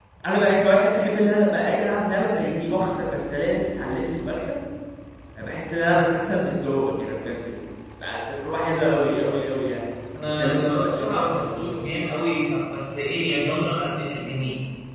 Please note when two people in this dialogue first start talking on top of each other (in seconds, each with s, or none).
10.1 s